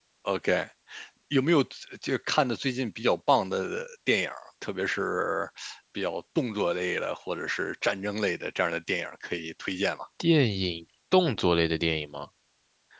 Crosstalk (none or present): none